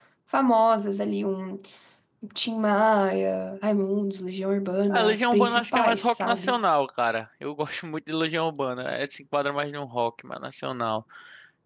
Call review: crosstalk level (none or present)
present